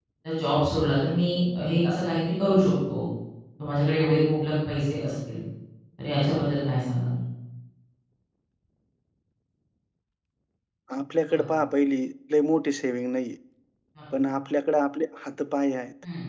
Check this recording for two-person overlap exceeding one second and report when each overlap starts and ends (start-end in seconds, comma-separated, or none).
none